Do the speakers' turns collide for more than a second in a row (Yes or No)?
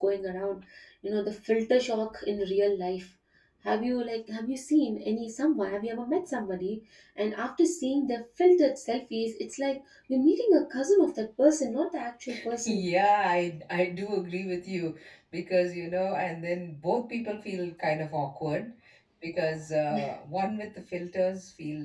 No